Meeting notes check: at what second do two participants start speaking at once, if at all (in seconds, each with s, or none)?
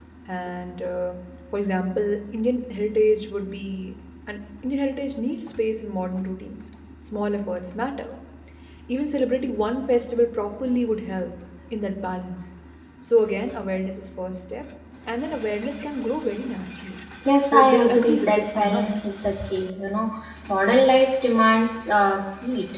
17.5 s